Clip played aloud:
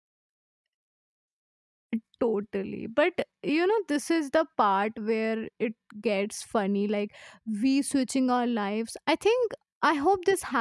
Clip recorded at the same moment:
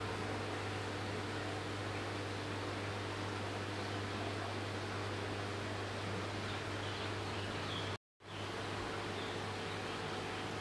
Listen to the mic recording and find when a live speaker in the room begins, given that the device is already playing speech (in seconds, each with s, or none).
none